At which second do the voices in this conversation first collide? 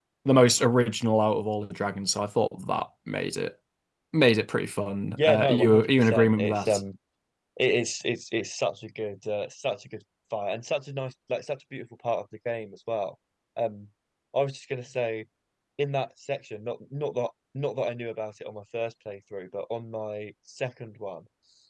5.2 s

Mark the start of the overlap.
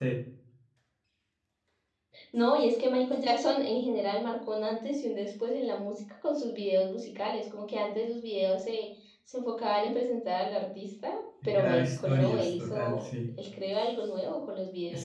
11.4 s

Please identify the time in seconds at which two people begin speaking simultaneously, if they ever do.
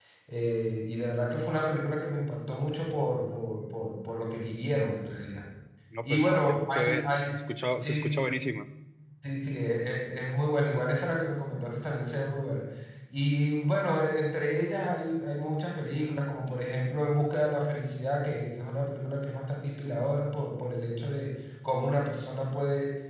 6.0 s

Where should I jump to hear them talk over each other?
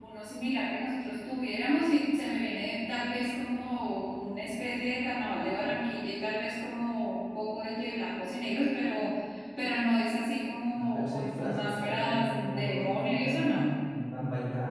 10.8 s

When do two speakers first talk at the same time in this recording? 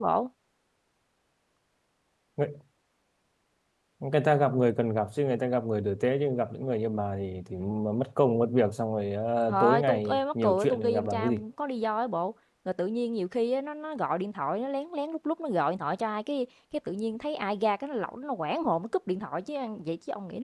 9.5 s

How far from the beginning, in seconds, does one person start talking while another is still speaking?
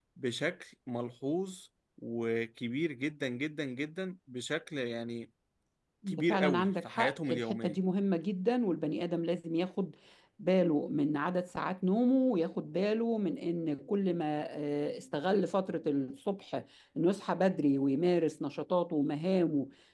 6.1 s

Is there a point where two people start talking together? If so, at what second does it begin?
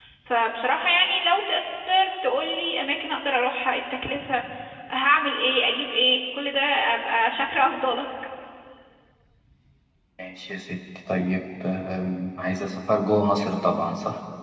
none

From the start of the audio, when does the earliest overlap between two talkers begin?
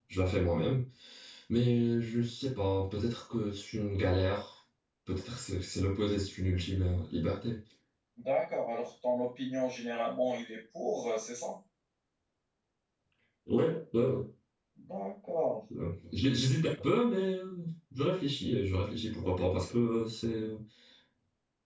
none

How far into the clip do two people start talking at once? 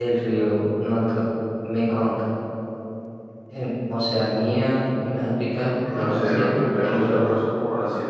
5.8 s

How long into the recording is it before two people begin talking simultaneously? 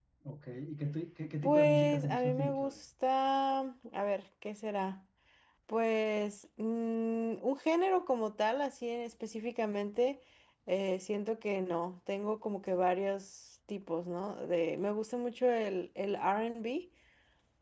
1.4 s

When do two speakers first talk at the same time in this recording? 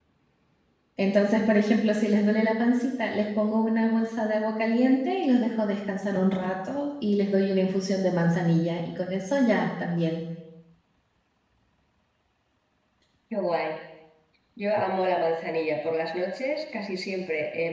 none

